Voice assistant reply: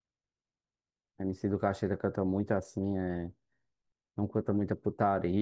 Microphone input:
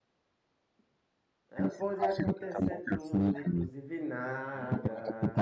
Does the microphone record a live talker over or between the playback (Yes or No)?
Yes